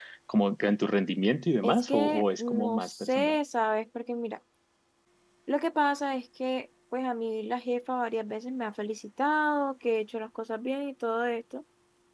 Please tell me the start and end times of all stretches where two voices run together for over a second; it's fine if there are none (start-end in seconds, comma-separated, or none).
1.6-3.4